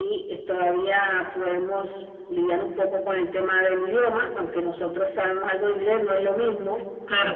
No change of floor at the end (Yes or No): No